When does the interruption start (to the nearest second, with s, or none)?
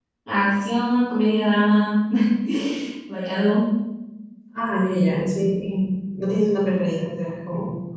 none